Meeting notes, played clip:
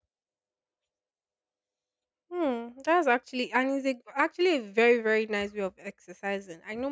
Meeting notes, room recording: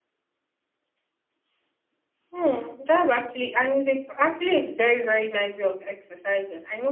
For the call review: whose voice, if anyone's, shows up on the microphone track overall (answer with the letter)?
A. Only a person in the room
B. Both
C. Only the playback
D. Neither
C